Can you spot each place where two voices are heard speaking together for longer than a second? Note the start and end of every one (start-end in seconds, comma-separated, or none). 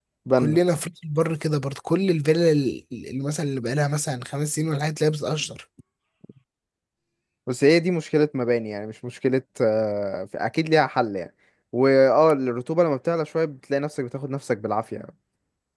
none